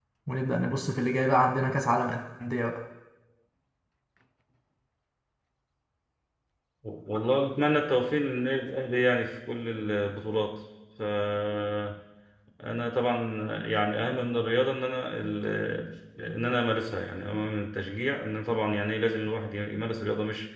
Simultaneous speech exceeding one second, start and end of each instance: none

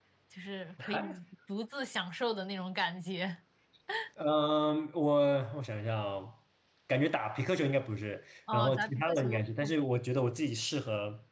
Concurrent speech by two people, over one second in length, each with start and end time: 8.5-9.8

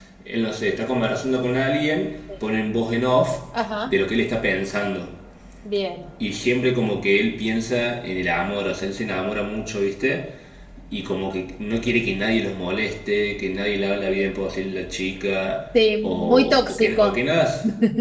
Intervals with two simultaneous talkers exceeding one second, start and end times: 15.7-17.1

